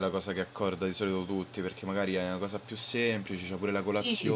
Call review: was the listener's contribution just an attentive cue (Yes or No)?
No